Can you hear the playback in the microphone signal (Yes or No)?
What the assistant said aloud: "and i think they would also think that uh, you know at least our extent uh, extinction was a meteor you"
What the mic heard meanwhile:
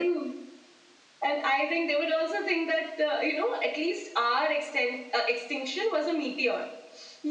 Yes